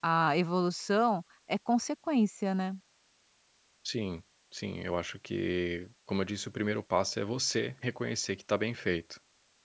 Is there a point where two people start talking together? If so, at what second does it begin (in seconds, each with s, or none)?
none